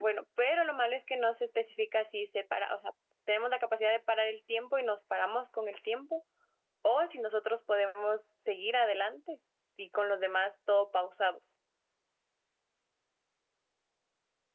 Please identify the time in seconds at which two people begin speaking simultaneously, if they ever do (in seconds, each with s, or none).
none